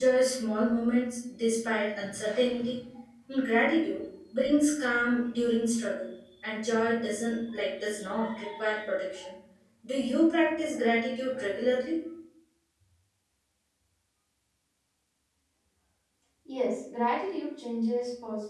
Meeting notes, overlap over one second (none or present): none